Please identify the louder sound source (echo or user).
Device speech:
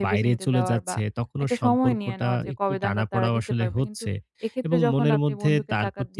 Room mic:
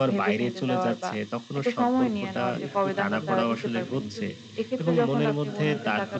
echo